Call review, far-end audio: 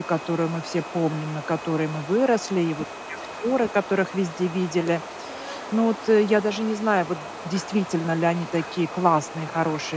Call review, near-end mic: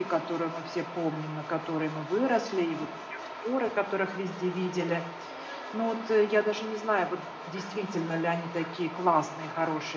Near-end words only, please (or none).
none